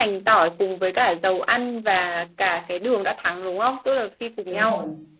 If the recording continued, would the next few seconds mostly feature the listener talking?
Yes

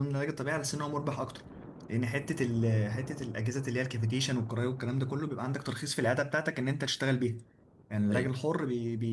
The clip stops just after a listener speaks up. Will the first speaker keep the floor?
Yes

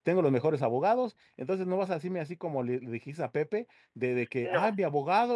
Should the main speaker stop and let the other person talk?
No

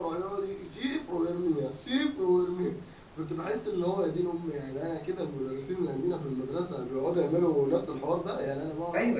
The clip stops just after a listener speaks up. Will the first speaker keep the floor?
No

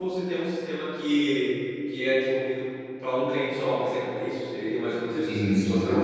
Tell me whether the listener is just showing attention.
No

